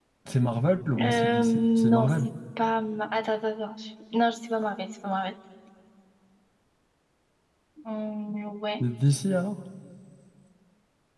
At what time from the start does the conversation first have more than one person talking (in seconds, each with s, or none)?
1.0 s